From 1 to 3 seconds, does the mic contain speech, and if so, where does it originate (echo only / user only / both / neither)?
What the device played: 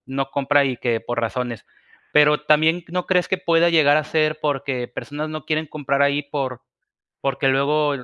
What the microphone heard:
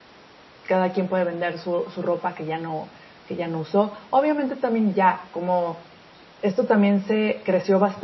user only